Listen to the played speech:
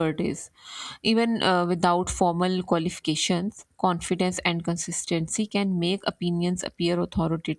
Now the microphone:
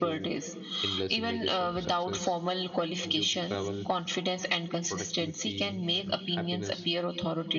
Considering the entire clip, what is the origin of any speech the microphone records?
both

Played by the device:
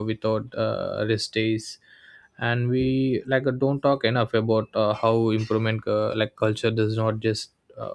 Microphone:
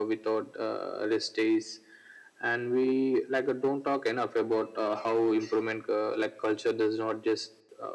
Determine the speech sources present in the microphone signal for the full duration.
echo only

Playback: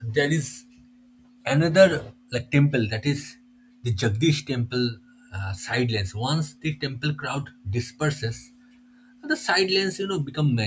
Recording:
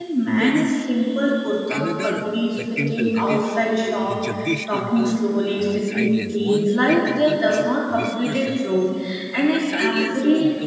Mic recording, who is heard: both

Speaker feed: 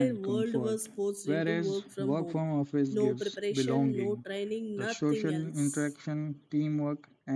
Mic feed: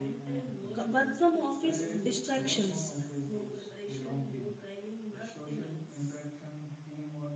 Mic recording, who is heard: both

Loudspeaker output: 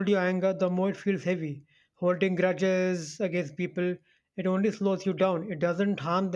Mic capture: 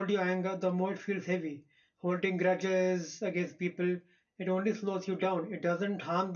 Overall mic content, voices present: echo only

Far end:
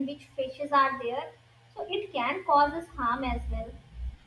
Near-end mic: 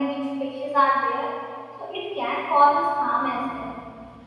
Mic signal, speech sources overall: echo only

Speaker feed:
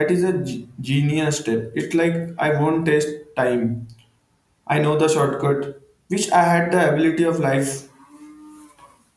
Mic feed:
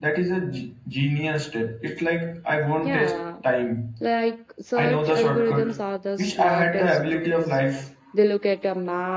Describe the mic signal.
both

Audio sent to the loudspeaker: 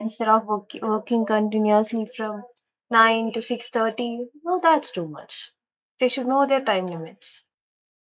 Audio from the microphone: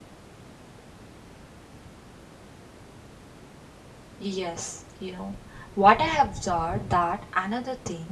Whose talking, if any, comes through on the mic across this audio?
user only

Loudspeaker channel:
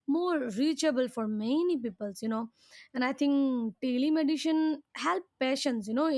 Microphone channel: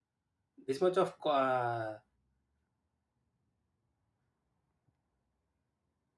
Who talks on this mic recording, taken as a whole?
user only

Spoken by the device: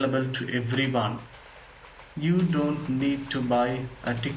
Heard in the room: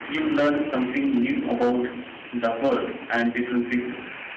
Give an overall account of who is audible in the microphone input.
user only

